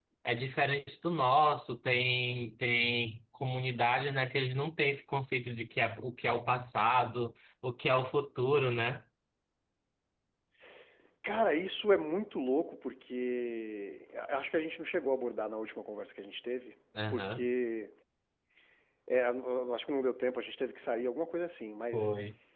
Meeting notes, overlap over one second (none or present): none